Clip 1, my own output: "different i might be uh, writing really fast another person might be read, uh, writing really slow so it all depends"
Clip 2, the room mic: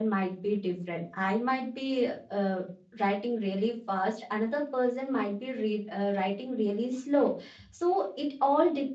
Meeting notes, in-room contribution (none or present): none